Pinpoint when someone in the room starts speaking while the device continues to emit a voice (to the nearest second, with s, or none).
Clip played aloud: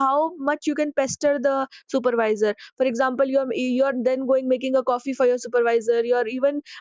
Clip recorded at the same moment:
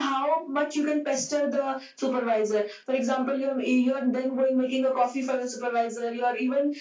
none